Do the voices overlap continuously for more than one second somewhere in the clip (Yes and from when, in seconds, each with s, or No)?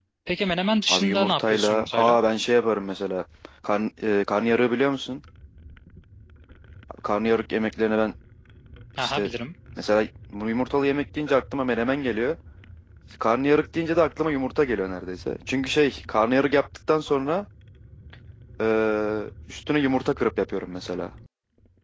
Yes, from 0.9 s